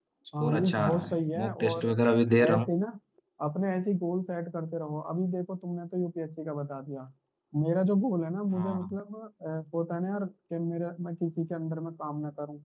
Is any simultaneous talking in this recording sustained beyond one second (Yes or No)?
Yes